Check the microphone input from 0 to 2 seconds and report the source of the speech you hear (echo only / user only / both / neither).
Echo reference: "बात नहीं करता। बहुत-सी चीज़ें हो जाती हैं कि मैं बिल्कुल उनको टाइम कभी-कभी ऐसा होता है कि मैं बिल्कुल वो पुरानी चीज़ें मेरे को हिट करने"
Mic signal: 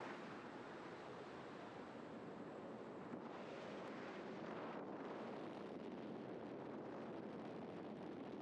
neither